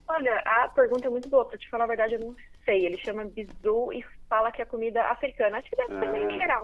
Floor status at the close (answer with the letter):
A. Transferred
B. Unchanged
B